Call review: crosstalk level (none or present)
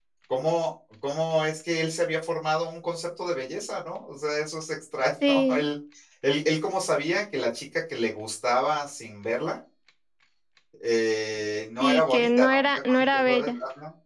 present